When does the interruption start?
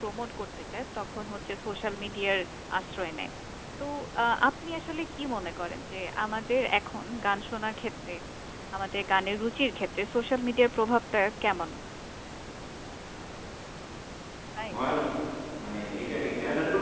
none

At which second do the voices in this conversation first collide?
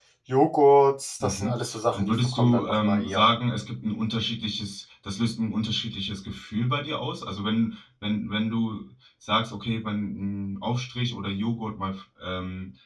1.2 s

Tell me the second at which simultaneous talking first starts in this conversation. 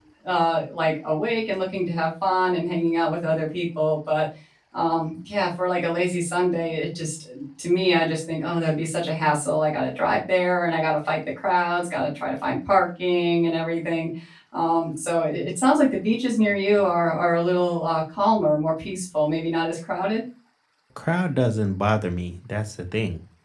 none

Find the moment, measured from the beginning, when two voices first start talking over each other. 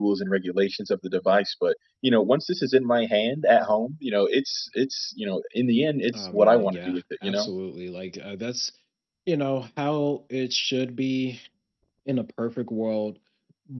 6.1 s

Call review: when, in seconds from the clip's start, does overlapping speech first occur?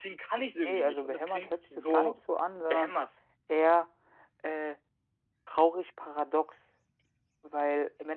0.6 s

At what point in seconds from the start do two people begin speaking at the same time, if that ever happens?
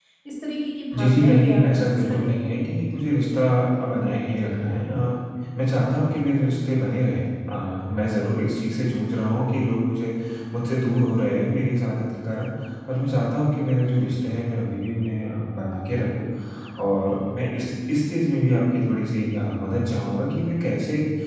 0.9 s

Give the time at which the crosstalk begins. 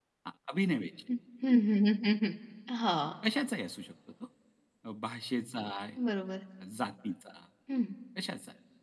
none

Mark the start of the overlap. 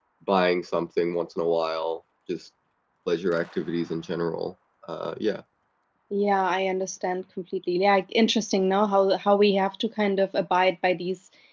none

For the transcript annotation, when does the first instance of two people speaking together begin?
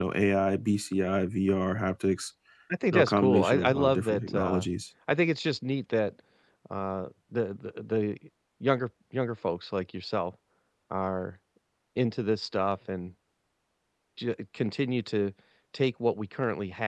2.9 s

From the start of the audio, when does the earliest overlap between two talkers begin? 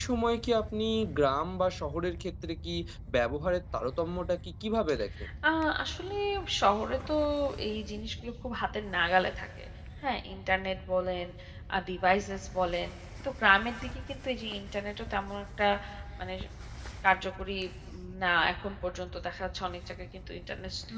none

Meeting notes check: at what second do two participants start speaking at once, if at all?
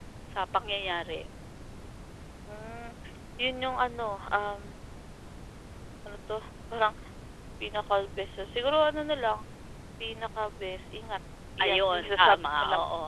11.6 s

